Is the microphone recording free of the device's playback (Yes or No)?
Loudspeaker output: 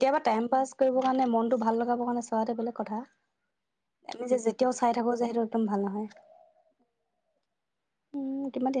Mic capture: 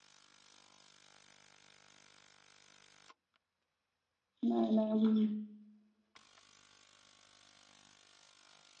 Yes